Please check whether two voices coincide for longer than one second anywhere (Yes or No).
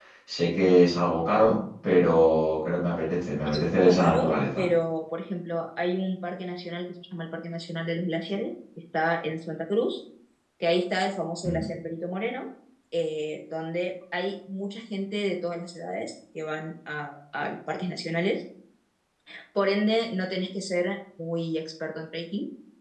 Yes